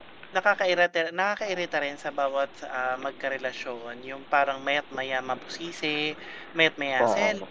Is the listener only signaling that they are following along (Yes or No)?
Yes